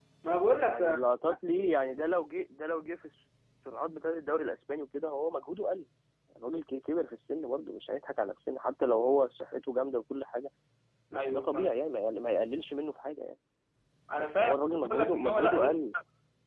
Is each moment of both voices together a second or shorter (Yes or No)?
No